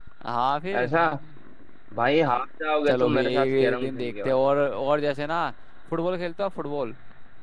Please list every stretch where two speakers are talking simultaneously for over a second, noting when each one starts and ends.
2.9-4.4

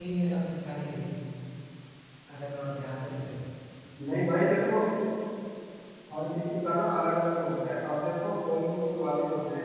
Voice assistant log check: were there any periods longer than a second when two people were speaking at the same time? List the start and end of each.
none

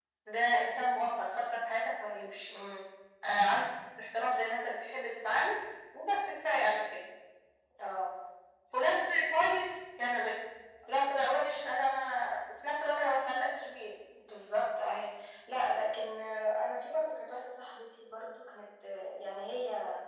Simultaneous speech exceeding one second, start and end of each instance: none

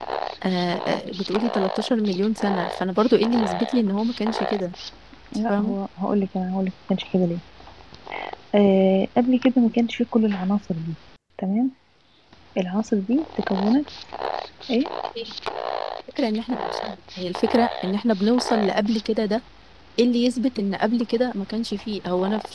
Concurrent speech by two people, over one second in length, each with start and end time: none

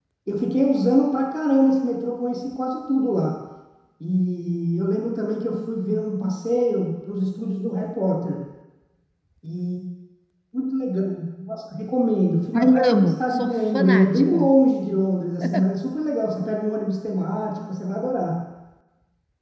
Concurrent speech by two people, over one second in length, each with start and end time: 12.5-14.5

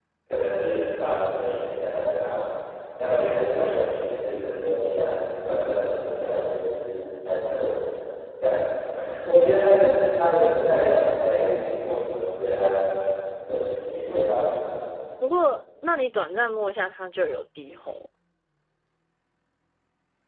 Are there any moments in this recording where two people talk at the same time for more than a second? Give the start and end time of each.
none

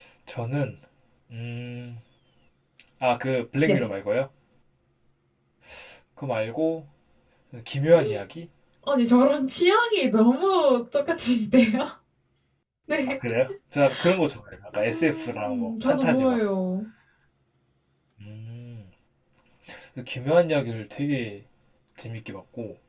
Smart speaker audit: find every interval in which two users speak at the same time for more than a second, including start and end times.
14.7-16.4

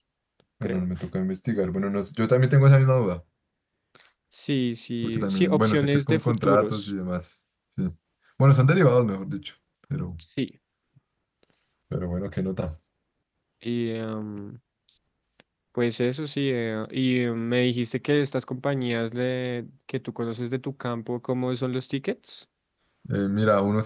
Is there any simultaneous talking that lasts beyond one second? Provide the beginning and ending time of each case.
5.0-6.9

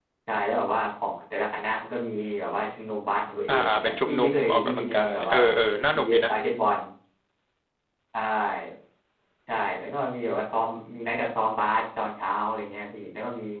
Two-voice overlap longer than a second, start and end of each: 3.5-5.3

